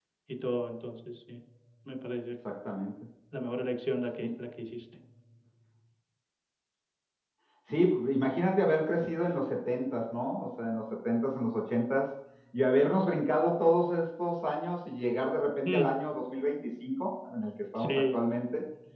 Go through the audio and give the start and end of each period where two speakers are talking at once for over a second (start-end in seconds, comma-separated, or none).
none